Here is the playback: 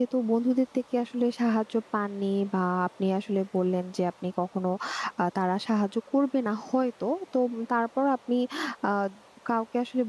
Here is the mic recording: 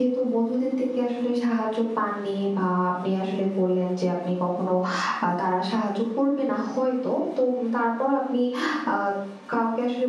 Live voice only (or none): none